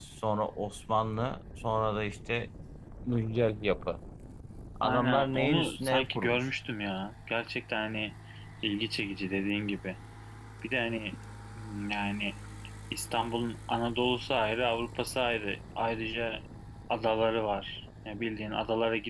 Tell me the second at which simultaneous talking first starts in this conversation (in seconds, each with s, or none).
4.8 s